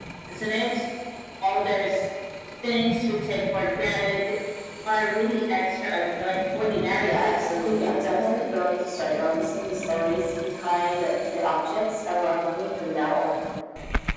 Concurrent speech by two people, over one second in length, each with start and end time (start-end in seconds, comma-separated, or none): 7.0-8.5